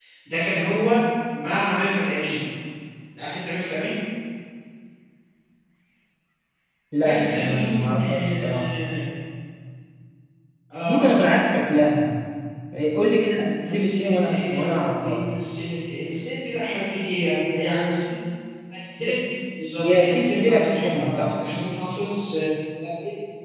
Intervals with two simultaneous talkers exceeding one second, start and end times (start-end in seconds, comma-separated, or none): 7.0-8.7, 13.7-15.2, 19.8-21.3